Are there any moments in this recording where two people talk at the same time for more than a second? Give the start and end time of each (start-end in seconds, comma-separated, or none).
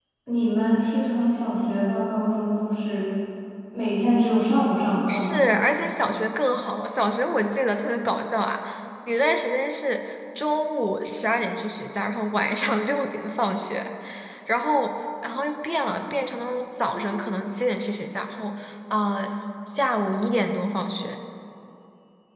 none